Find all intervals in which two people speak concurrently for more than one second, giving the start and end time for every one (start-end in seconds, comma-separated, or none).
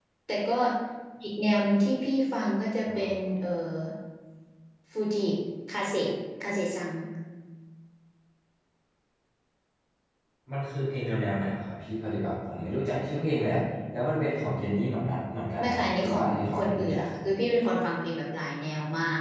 15.6-17.0